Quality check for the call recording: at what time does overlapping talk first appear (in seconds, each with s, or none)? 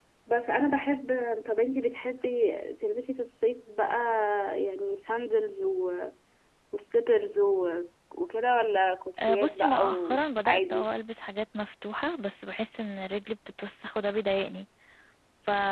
9.2 s